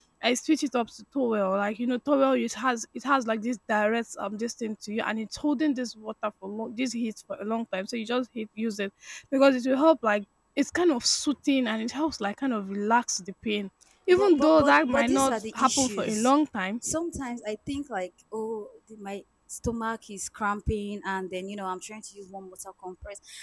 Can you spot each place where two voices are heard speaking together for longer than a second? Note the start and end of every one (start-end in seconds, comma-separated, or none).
14.1-16.3